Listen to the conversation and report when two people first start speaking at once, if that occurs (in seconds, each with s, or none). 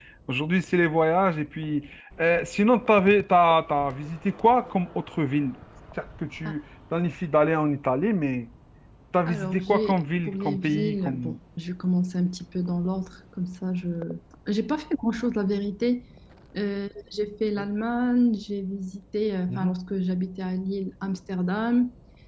9.2 s